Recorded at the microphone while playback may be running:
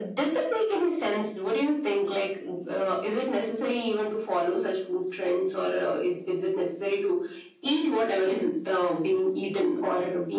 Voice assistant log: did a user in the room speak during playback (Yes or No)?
No